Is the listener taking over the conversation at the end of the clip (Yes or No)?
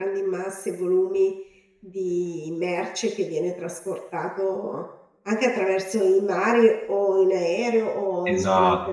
Yes